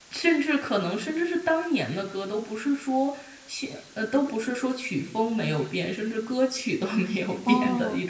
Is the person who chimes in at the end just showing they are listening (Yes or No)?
No